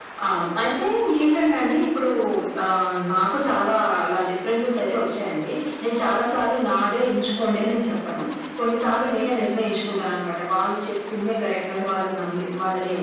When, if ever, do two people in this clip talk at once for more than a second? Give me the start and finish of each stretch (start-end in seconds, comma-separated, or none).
none